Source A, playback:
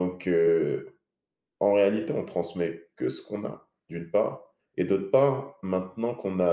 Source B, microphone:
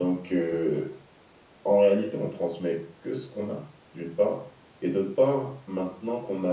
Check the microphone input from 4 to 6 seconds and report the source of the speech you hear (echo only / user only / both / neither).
echo only